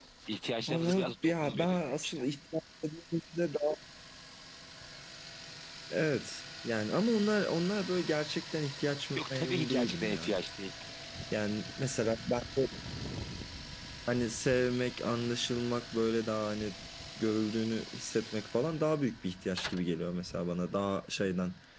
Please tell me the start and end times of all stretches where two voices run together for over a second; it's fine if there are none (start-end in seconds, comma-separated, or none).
0.7-2.2, 9.2-10.4